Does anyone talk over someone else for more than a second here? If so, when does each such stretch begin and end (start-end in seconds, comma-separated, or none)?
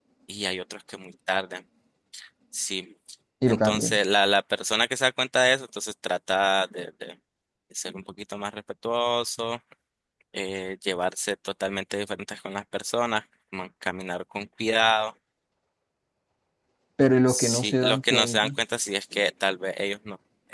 17.3-18.5